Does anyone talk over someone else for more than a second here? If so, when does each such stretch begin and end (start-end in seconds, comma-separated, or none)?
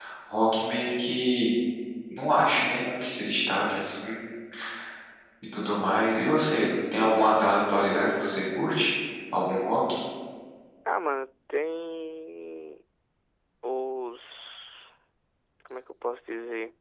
none